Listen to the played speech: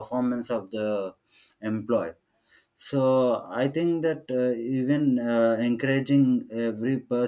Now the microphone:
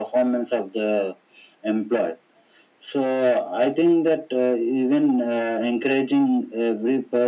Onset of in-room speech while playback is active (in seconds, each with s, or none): none